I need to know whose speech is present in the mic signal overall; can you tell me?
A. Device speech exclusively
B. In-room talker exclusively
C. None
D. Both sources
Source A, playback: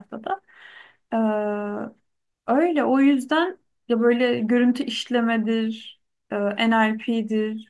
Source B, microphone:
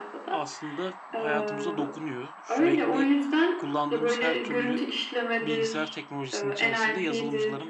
D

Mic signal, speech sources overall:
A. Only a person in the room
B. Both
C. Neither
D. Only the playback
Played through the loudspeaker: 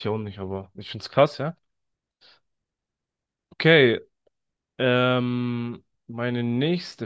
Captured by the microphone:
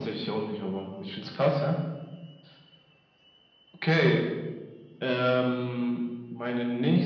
D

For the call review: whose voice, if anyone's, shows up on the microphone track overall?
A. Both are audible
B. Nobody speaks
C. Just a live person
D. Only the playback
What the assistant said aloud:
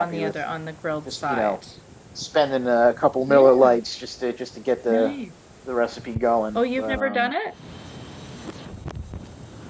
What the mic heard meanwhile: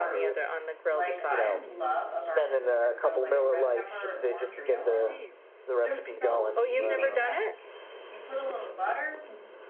A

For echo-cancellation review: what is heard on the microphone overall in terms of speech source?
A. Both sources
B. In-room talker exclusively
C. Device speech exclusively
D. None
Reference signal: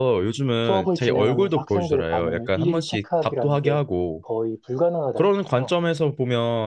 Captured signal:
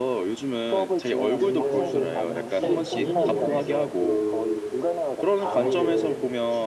A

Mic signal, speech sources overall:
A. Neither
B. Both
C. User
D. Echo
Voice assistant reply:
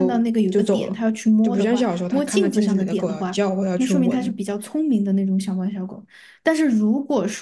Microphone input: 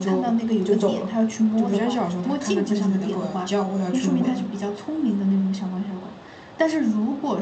D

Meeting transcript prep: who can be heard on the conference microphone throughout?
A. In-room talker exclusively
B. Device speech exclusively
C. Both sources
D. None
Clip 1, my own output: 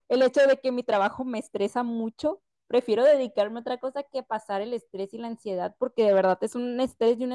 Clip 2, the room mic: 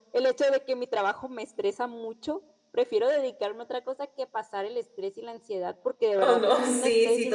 C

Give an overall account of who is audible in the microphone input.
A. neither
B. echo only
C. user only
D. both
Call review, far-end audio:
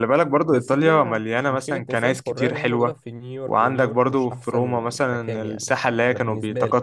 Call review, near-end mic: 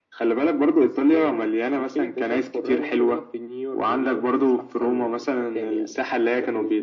B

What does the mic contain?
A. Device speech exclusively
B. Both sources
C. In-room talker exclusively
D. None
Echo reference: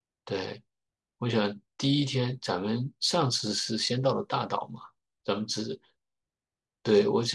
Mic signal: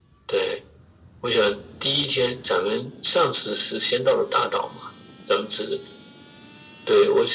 A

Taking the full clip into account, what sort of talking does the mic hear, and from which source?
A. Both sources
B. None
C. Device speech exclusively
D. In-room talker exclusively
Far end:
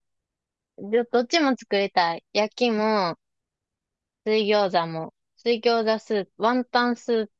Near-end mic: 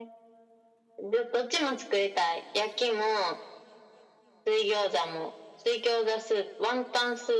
C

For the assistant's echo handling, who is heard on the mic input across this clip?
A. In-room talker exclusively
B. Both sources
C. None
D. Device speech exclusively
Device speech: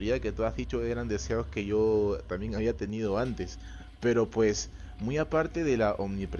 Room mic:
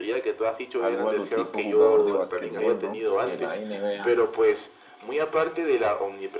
B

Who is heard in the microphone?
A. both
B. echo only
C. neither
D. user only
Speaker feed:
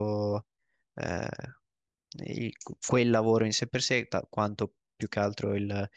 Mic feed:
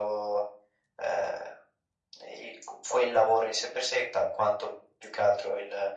B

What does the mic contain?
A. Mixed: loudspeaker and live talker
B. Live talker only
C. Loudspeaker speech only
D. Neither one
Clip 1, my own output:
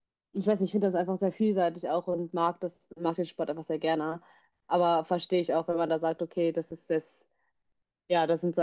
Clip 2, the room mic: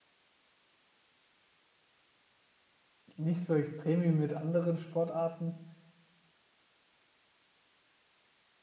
B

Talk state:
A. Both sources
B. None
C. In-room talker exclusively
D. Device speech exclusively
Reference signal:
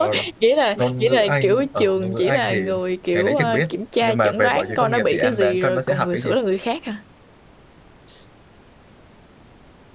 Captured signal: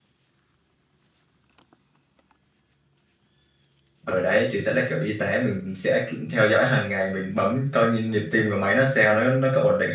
C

